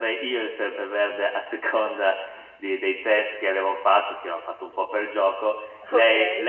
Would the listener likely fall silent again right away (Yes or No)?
Yes